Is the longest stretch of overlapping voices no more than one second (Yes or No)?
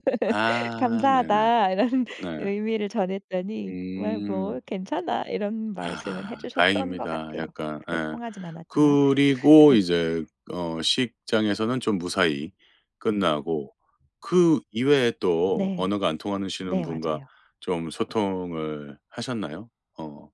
No